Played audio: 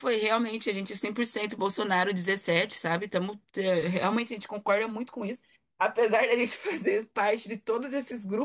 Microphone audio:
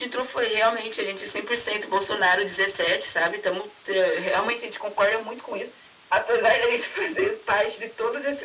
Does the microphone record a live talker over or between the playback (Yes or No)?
No